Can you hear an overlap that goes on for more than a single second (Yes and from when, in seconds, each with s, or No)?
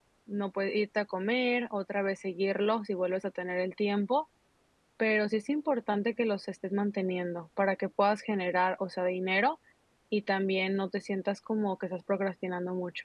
No